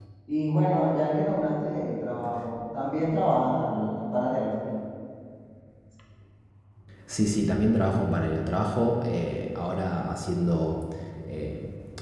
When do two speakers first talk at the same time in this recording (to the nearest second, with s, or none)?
none